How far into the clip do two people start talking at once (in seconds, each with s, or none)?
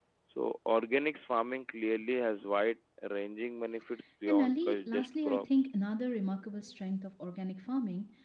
4.3 s